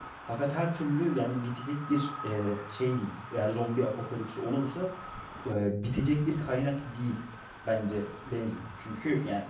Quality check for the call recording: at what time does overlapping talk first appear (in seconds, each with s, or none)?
none